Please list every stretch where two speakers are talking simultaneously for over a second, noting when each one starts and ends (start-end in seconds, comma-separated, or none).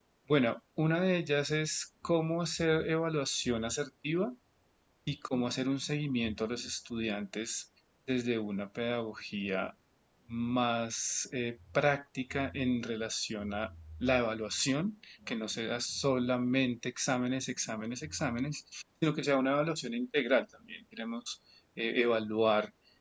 none